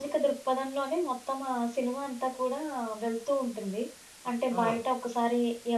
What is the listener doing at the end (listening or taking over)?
listening